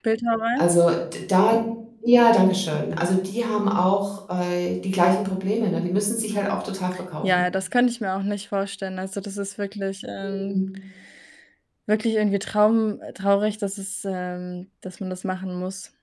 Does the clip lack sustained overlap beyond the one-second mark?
Yes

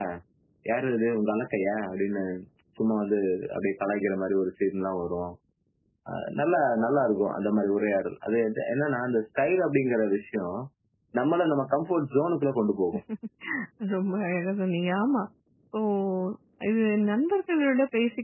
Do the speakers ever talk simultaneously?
No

